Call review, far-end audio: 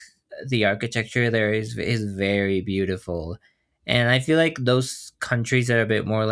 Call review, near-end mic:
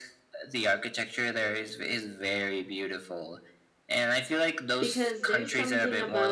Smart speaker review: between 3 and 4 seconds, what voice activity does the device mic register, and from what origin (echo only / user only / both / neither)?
echo only